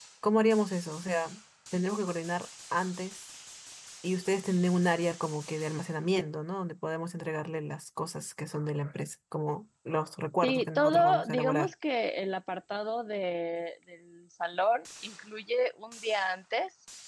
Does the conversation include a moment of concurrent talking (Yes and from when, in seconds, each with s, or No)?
Yes, from 10.4 s